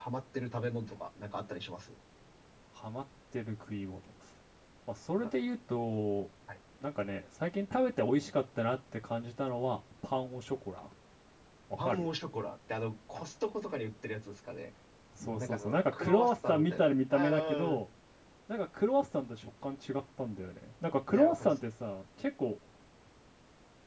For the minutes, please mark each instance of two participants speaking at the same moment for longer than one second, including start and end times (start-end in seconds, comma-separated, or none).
15.4-17.8